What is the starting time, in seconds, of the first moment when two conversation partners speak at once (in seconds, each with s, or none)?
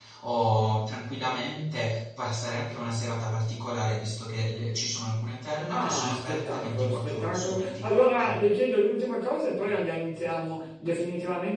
5.7 s